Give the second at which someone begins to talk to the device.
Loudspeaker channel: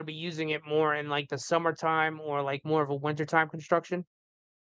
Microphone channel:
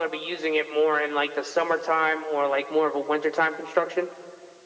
none

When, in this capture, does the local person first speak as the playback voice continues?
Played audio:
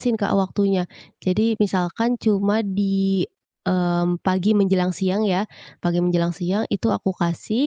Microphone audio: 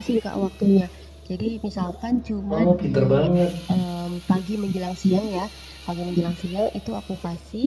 2.5 s

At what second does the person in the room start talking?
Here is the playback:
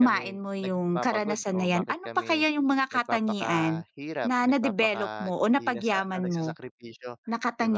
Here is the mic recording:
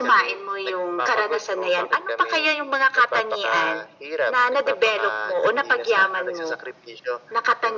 none

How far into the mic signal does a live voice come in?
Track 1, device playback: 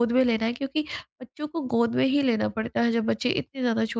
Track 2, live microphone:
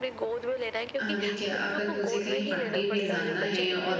1.0 s

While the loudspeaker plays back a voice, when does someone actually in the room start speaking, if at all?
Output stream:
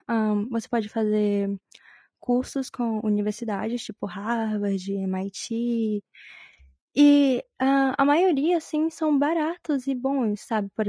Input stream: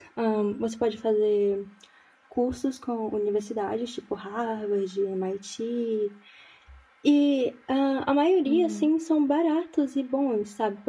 8.4 s

